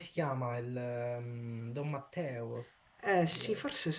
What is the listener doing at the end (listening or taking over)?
taking over